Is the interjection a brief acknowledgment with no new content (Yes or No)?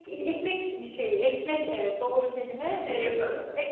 Yes